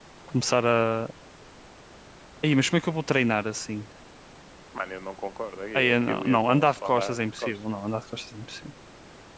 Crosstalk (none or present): present